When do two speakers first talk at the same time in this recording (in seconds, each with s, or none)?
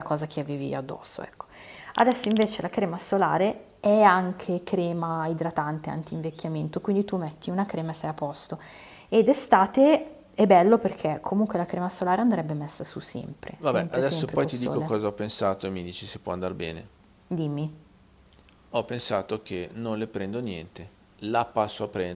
13.6 s